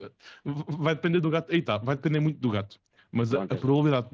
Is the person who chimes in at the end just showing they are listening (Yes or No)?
Yes